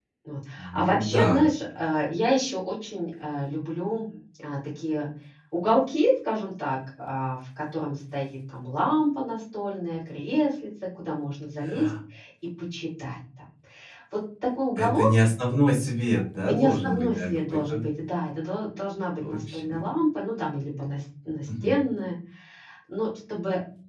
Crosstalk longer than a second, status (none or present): present